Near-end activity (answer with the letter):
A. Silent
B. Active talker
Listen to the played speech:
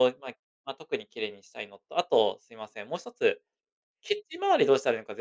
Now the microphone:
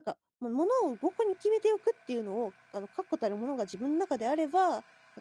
B